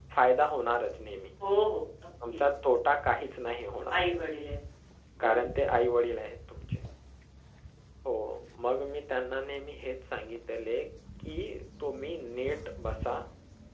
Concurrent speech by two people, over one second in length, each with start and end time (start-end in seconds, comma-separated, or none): none